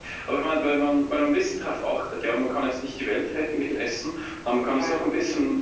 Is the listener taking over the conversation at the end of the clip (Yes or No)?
No